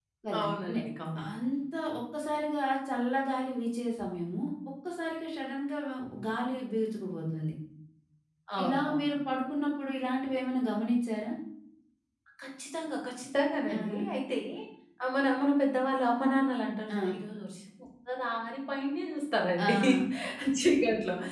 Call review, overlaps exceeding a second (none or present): none